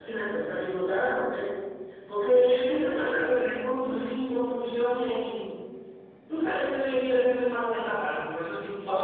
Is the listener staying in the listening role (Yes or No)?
No